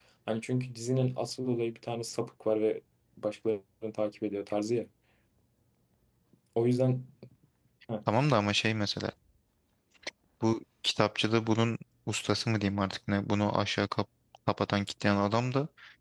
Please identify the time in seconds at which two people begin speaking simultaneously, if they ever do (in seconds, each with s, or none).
none